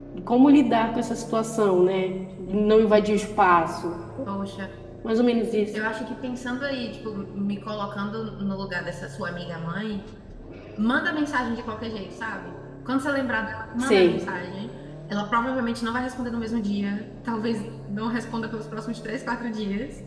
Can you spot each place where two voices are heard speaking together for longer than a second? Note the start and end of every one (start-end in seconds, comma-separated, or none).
none